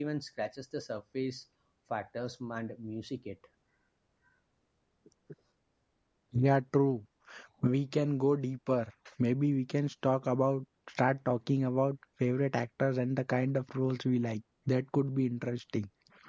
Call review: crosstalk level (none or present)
none